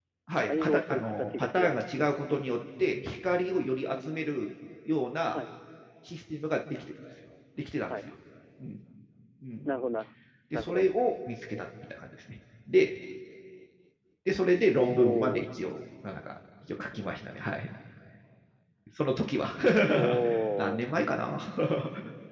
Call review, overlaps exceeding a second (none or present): present